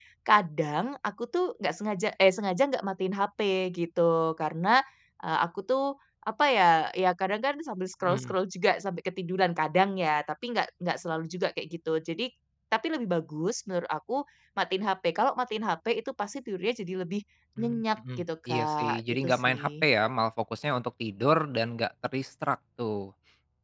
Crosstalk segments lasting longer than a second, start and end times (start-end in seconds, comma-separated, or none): 17.6-19.9